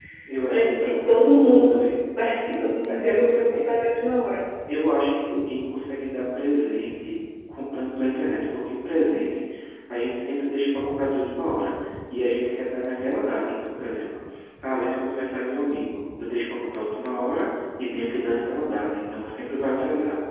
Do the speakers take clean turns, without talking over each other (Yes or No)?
No